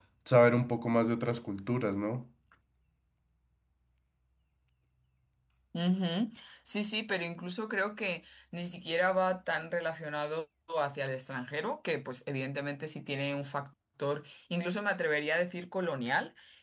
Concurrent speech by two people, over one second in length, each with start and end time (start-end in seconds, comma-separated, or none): none